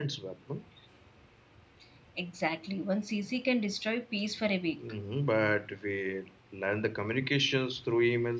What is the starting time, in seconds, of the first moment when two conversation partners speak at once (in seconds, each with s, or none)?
none